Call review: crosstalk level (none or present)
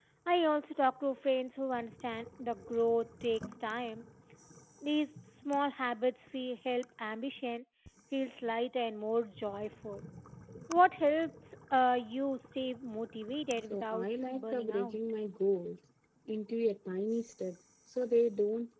present